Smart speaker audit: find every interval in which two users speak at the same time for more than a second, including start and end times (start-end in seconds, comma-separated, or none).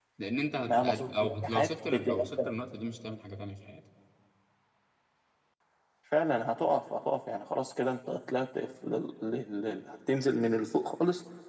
0.7-2.5